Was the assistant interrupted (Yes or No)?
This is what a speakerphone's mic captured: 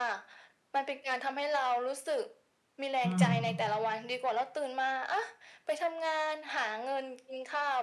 Yes